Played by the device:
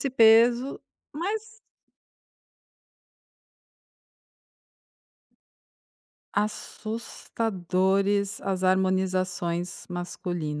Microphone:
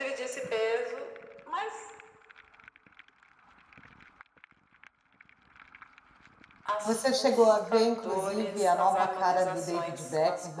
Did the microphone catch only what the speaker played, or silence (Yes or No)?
No